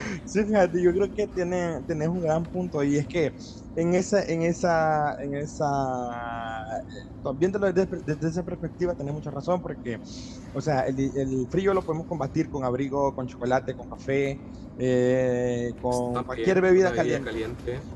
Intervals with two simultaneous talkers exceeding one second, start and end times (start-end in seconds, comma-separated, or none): 15.9-17.3